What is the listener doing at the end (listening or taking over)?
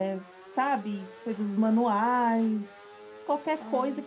listening